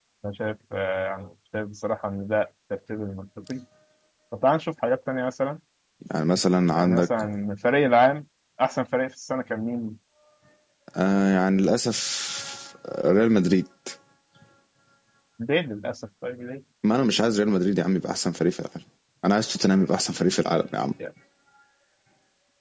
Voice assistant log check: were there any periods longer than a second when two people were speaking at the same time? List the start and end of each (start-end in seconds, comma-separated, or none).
none